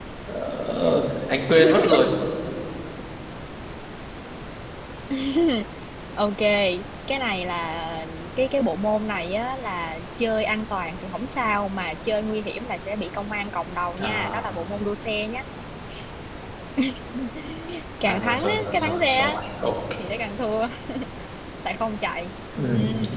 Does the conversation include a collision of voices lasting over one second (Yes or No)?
Yes